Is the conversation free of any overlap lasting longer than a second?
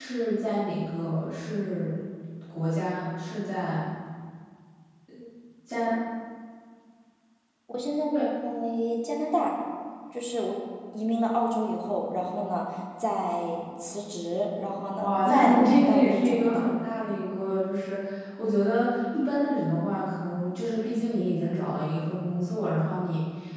No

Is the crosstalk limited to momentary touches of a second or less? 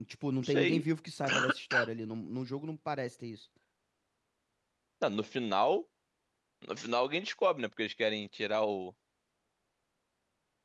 Yes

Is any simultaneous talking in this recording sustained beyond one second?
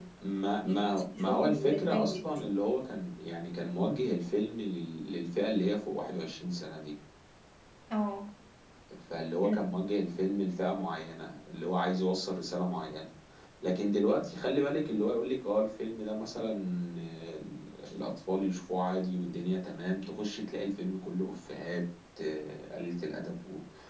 Yes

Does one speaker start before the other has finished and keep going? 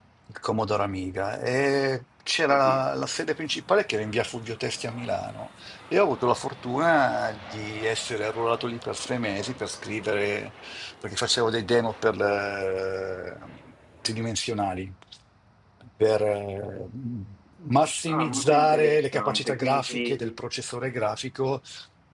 Yes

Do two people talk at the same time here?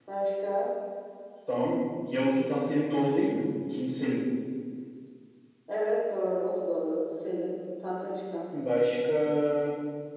No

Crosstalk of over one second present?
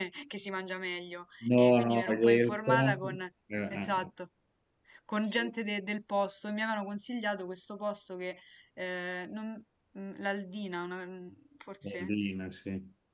Yes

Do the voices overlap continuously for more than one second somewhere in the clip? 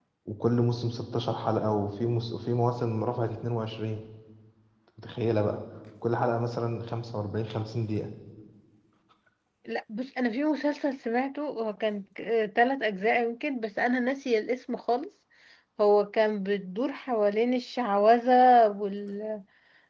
No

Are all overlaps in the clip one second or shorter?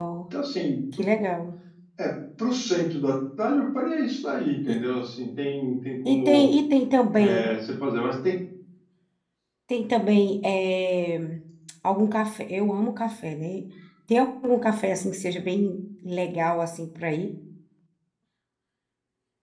Yes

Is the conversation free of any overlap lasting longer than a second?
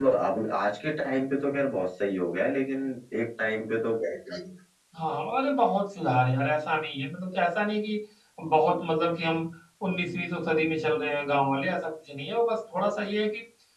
Yes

